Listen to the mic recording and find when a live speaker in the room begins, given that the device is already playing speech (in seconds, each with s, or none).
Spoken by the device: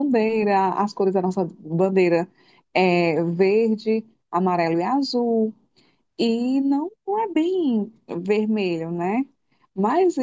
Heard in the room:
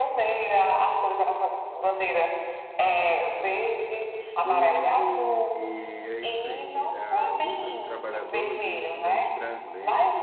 4.2 s